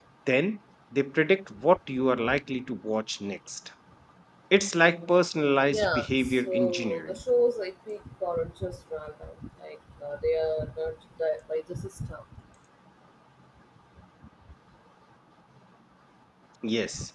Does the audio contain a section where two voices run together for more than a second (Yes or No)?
Yes